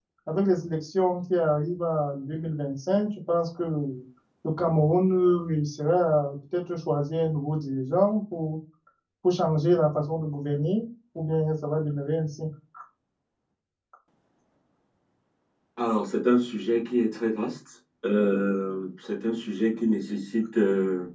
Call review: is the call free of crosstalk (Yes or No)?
Yes